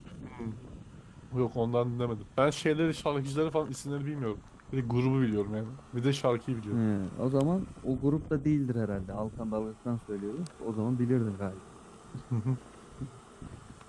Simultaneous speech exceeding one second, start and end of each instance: none

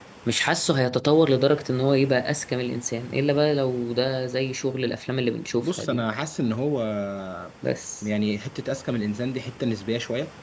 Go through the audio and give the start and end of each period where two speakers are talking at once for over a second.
none

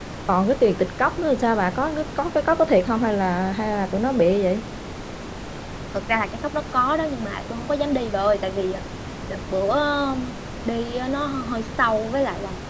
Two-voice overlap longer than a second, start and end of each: none

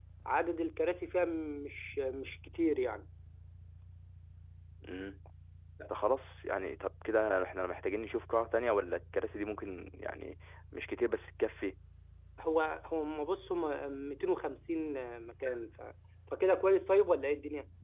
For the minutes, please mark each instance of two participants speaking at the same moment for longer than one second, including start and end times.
none

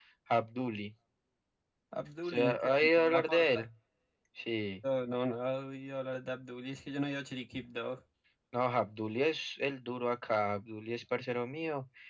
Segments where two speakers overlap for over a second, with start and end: 2.2-3.6

